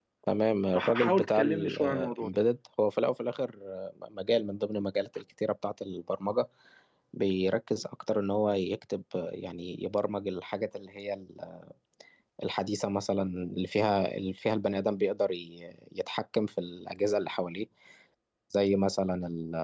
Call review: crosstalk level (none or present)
present